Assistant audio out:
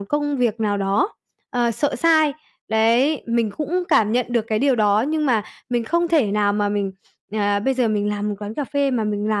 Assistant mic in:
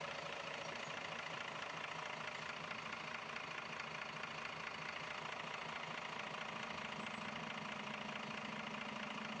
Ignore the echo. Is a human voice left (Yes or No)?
No